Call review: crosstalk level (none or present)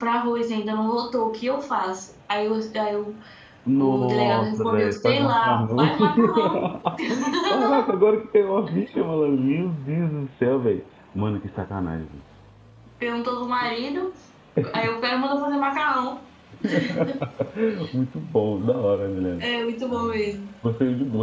present